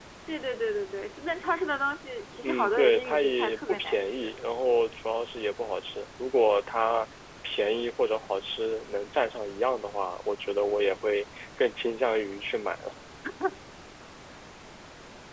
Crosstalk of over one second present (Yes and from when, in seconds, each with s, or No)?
Yes, from 2.4 s